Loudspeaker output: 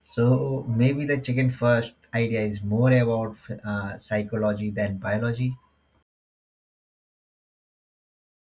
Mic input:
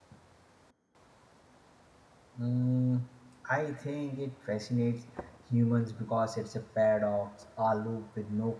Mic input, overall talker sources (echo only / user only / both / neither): user only